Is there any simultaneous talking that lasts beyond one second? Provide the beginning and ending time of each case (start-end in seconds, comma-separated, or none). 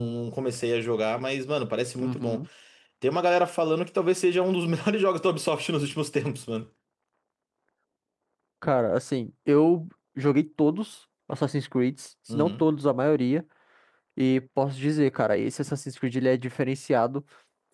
none